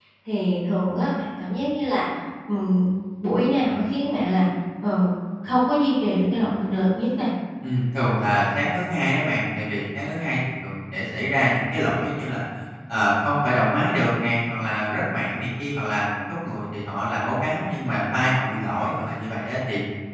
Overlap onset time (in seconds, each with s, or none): none